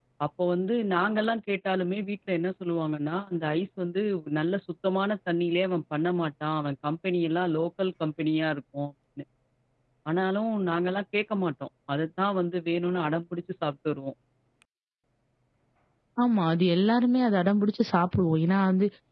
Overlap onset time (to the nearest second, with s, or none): none